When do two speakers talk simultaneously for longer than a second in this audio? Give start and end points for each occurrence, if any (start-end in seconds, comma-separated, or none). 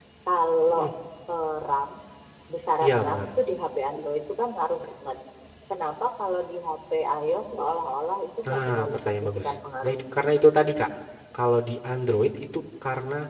8.4-9.9